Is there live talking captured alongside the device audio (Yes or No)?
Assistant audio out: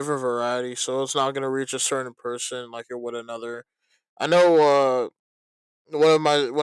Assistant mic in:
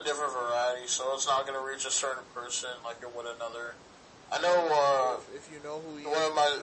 Yes